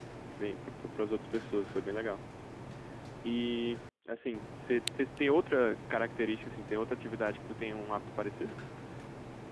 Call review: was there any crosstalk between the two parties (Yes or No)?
No